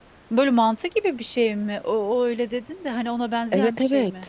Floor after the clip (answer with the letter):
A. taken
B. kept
A